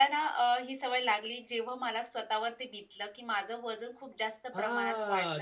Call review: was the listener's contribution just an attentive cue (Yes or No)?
No